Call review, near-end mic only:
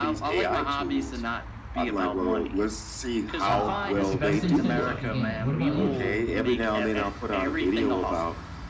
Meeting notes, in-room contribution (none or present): present